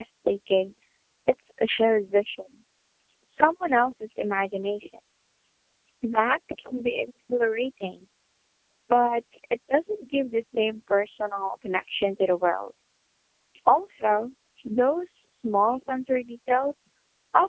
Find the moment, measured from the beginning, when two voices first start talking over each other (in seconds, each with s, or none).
none